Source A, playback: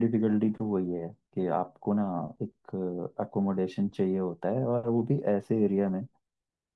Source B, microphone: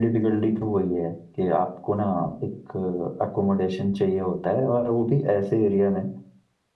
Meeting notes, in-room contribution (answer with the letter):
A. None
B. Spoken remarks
A